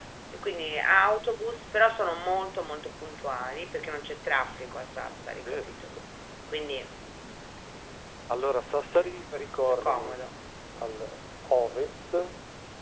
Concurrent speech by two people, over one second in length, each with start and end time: none

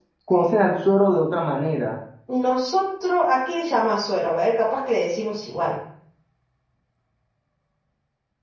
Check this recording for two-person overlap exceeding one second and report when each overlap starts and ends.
none

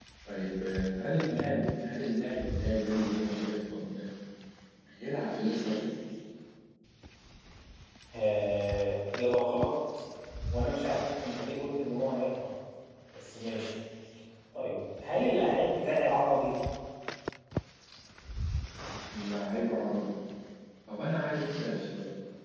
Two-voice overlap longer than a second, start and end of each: none

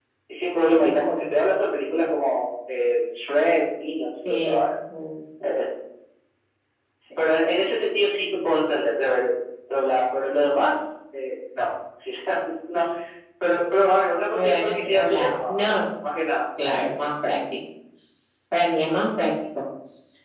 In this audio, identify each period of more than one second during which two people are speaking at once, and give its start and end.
14.3-15.8

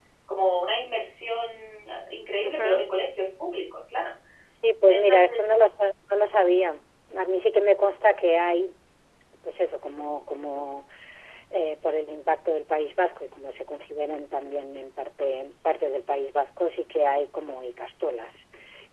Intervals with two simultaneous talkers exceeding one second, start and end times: none

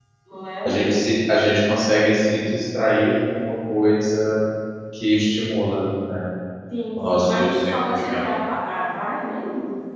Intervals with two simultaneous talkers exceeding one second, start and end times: 7.0-8.2

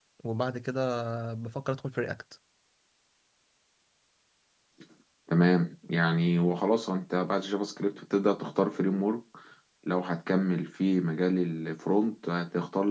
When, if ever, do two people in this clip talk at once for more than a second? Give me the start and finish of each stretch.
none

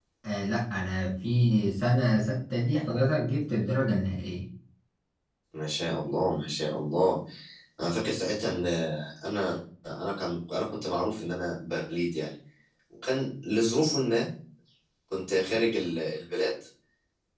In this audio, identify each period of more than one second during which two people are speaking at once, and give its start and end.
none

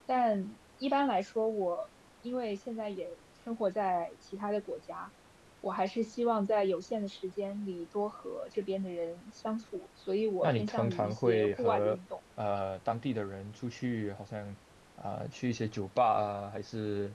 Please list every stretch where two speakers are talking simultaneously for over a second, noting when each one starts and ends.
10.4-12.0

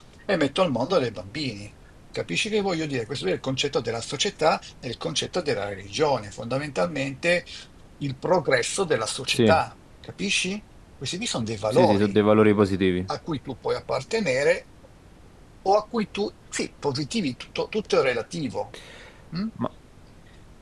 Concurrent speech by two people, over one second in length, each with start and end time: none

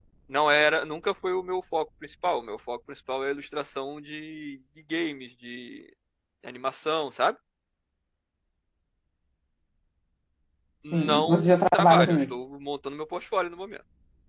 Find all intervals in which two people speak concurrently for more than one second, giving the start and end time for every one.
10.9-12.3

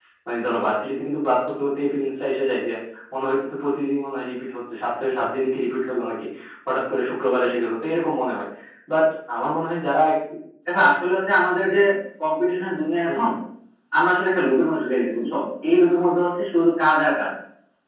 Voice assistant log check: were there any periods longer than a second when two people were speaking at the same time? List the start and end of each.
none

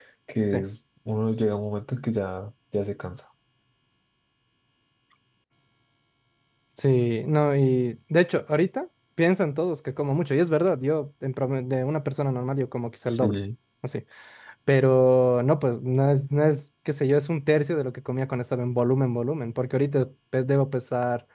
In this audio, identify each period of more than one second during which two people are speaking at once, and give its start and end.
none

